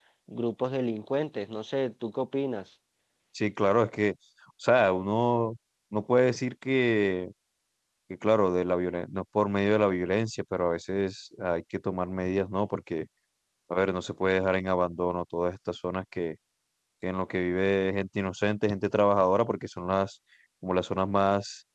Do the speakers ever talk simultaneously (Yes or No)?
No